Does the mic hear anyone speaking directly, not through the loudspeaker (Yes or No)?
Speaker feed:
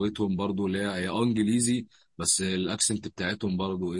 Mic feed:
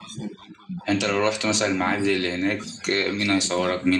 Yes